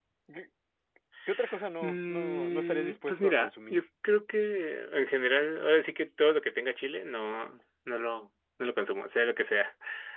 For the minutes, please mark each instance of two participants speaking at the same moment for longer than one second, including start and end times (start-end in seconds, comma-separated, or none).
1.8-3.8